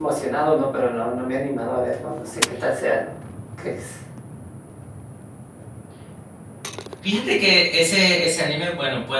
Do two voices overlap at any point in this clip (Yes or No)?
No